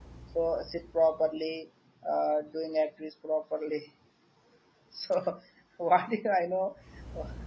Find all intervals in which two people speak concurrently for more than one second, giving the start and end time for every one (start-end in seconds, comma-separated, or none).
none